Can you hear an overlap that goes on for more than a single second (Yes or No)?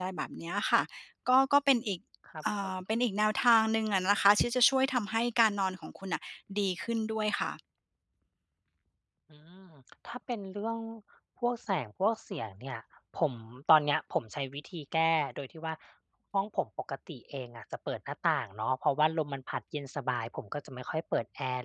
No